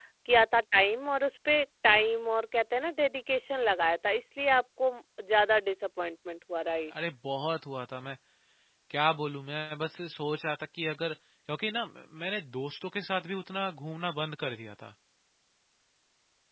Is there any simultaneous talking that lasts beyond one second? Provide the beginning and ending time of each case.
none

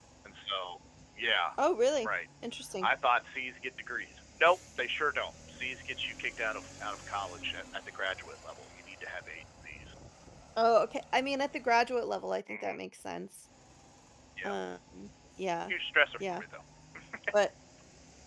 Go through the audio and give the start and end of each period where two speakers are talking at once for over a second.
none

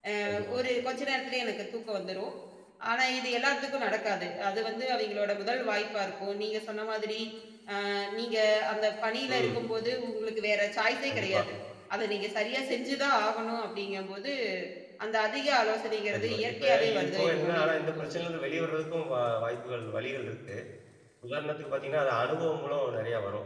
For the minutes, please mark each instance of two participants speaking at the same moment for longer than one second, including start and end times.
16.1-18.2

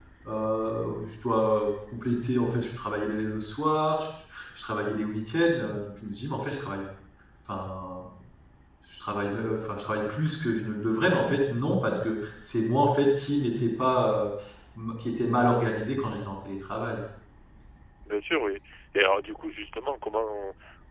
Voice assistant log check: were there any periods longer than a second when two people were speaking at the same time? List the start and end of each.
none

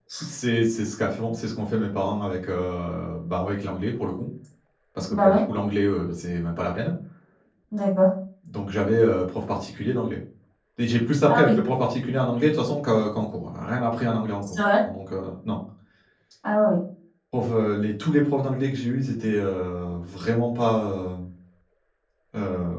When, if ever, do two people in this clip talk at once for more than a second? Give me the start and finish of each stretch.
none

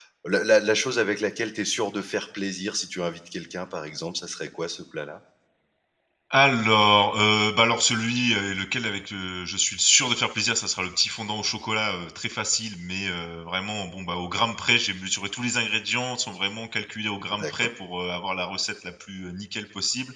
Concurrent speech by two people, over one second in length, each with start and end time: none

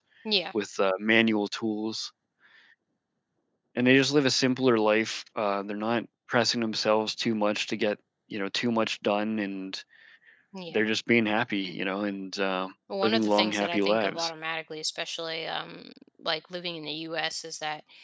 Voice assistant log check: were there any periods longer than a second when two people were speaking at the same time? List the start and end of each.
13.0-14.3

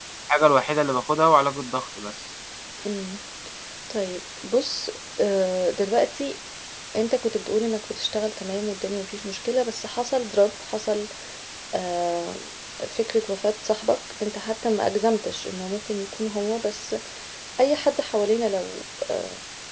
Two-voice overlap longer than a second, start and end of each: none

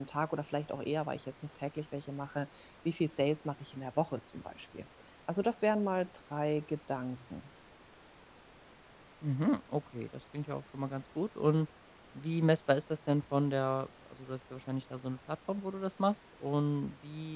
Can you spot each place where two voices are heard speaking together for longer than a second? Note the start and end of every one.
none

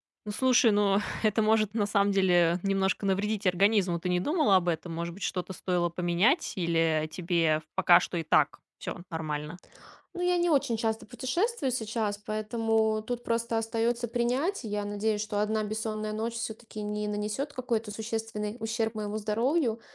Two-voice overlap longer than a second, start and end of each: none

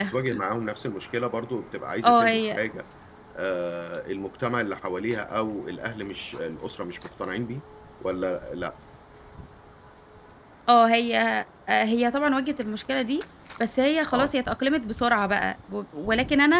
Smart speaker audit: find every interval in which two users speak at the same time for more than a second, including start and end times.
none

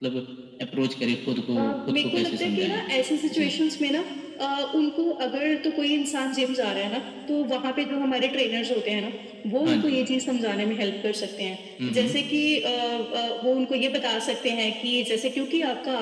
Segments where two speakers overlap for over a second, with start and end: 1.6-2.8

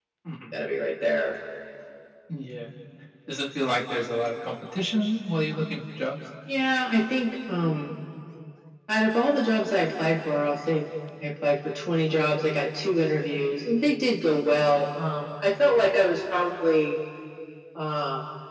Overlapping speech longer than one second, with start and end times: none

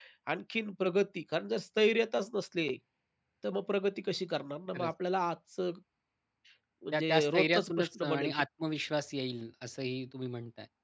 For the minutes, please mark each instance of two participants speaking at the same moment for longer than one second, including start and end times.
6.9-8.4

